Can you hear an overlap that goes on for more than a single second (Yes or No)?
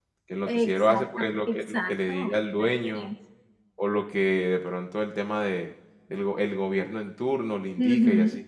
Yes